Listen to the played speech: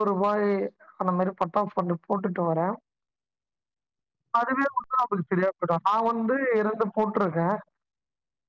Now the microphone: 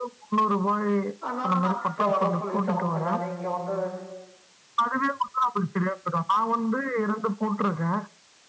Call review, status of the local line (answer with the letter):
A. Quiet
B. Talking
B